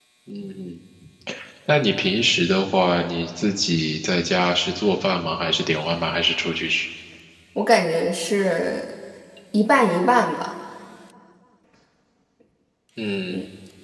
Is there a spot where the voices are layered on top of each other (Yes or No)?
No